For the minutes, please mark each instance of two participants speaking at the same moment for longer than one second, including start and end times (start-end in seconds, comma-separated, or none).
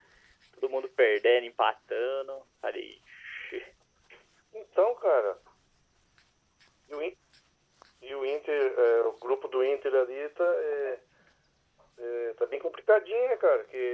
none